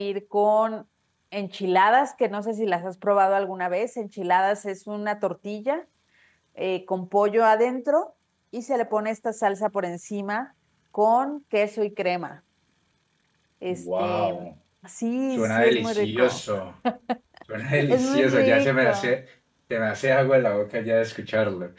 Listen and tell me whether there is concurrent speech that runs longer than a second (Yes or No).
Yes